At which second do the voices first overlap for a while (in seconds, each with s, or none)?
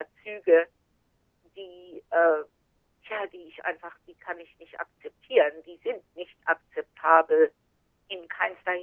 none